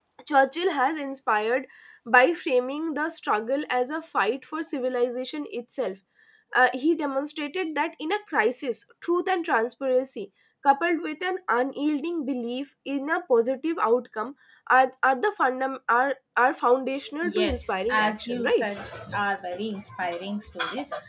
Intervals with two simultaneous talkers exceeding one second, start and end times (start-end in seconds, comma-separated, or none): 17.2-18.7